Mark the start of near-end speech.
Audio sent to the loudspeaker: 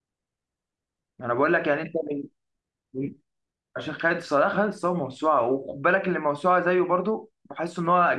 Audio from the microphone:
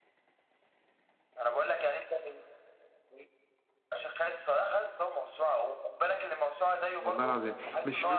7 s

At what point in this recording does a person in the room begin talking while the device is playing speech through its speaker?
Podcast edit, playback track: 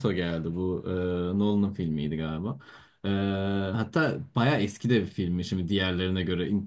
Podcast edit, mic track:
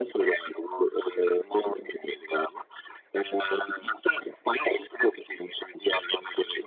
none

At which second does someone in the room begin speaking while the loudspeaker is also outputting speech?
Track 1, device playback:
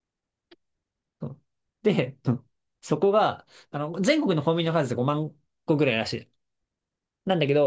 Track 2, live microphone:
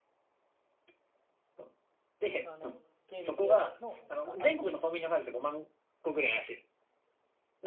2 s

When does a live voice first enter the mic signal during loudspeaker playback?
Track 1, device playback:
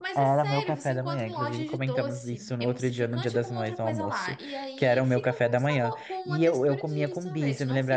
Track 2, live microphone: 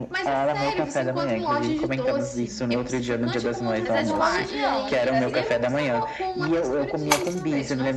4 s

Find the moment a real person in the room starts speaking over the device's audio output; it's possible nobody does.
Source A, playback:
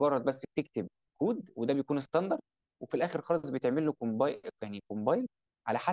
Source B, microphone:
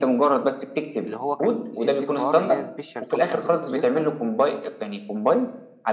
1 s

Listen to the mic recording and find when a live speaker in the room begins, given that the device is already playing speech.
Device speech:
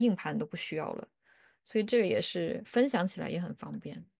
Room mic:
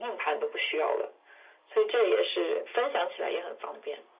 none

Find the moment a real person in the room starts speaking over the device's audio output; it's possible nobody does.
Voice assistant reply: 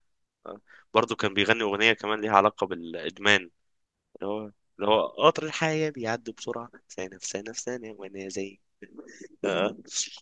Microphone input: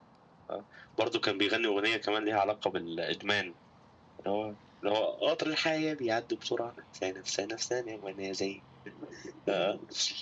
none

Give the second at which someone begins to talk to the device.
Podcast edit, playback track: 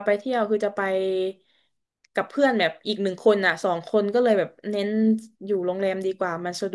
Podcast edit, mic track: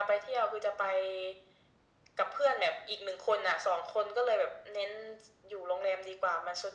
none

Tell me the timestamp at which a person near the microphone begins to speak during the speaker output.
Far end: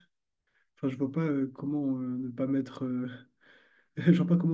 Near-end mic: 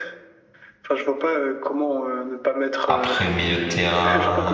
3 s

